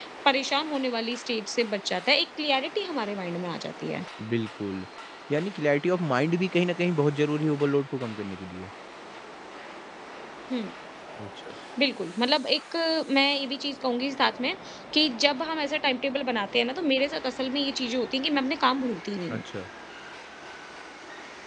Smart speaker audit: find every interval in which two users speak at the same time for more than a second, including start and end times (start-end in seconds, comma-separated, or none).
none